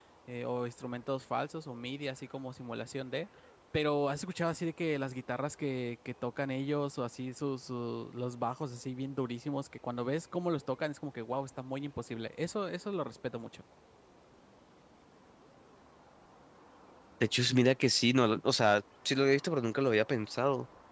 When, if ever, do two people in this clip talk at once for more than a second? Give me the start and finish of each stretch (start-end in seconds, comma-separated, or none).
none